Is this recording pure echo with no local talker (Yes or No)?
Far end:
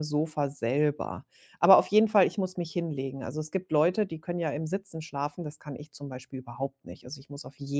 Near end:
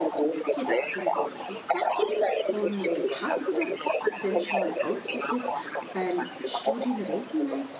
No